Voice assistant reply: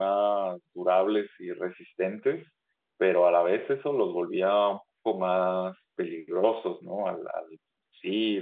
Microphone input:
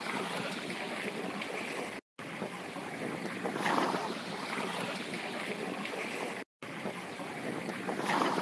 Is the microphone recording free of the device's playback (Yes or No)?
Yes